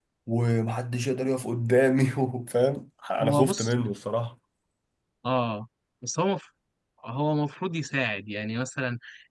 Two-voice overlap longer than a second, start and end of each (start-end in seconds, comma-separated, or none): none